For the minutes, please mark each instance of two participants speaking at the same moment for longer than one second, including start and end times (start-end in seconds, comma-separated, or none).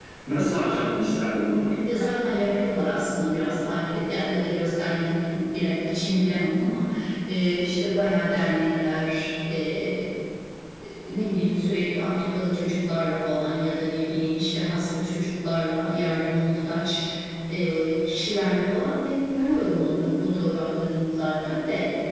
none